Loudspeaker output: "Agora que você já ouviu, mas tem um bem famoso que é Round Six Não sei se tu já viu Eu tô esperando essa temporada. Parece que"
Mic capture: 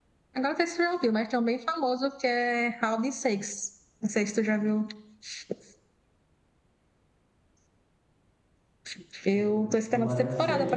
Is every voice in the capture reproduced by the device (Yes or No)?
No